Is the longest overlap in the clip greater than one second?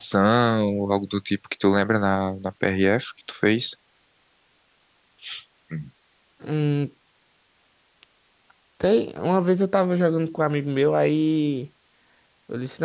No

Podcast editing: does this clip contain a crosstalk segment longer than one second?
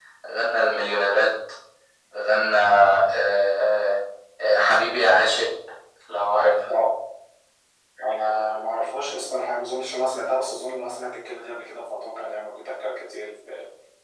No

